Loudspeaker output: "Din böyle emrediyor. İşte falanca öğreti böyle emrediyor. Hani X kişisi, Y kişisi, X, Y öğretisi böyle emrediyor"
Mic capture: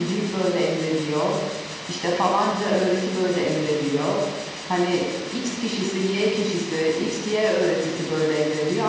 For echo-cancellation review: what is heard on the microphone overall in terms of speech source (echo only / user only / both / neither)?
echo only